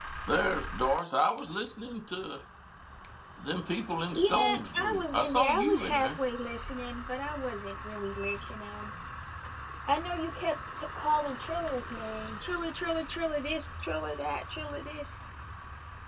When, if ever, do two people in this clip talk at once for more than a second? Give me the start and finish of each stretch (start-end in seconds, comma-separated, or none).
4.1-6.2